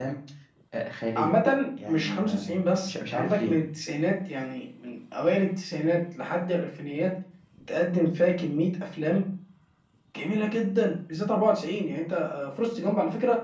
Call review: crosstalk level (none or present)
present